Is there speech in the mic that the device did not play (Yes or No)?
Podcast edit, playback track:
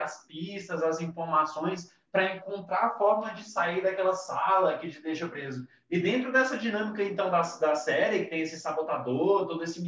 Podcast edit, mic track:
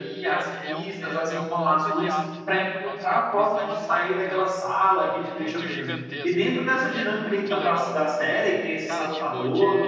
Yes